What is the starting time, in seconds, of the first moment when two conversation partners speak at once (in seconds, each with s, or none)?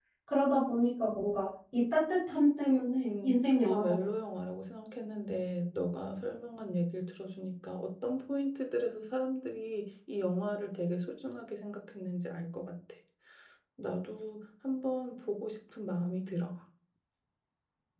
2.6 s